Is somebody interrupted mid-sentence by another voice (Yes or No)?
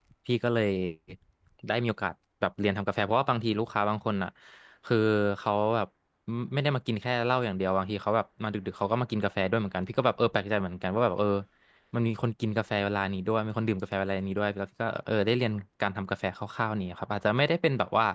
No